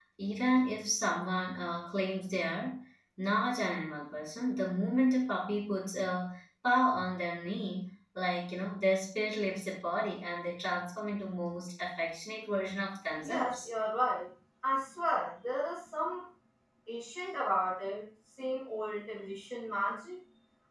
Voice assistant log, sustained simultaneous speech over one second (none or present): none